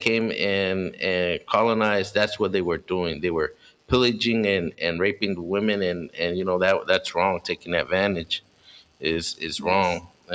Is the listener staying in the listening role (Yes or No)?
Yes